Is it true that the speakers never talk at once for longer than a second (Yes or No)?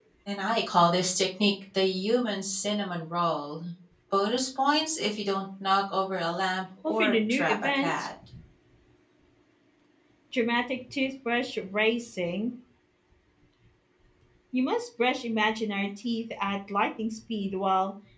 No